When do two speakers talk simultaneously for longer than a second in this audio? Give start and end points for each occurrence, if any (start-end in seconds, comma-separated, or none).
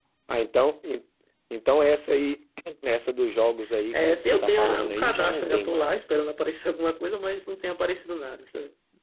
3.9-6.1